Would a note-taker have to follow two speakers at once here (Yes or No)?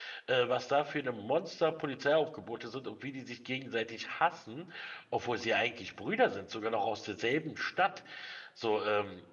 No